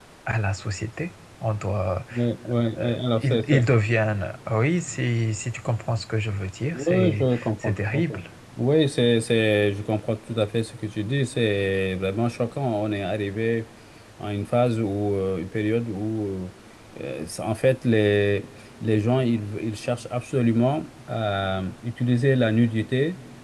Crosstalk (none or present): present